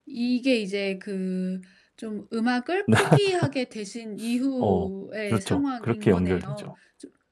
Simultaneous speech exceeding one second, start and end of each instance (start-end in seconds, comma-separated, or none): 5.3-6.7